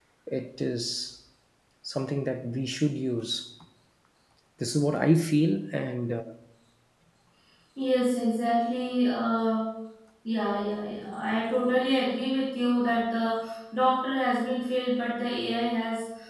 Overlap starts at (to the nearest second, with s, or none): none